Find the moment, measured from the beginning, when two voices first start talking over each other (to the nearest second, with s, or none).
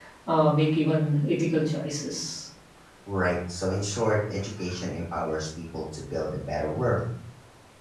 none